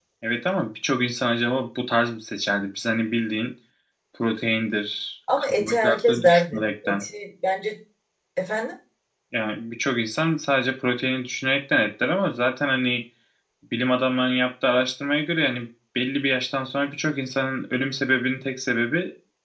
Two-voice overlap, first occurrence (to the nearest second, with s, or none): 5 s